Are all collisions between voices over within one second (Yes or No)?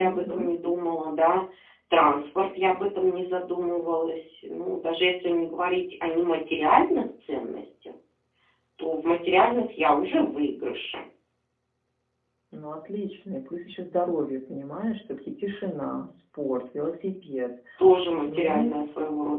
Yes